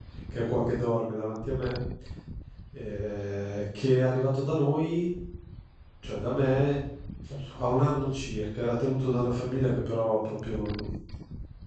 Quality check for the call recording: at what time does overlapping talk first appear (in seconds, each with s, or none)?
none